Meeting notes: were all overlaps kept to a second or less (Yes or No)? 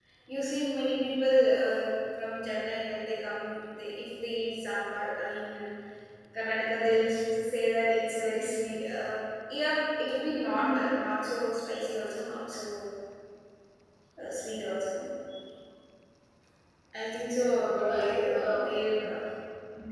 No